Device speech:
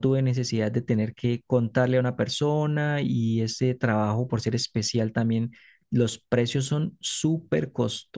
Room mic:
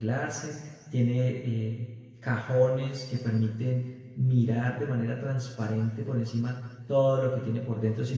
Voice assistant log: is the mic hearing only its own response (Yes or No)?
No